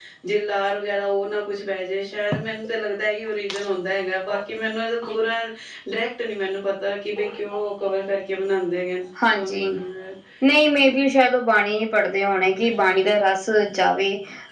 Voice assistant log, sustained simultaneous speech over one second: none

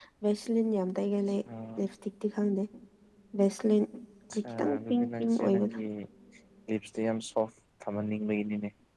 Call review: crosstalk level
present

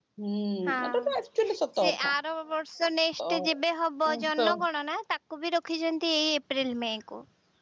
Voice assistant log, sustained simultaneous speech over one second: none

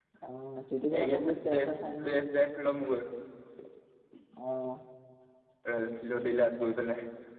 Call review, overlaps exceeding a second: present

